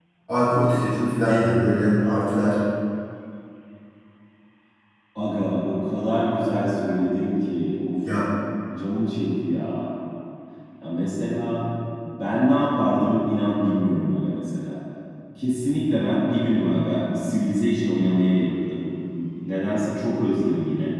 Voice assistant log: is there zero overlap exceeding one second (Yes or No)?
Yes